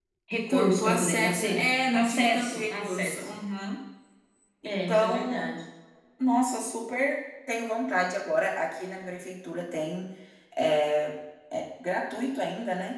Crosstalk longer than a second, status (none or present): present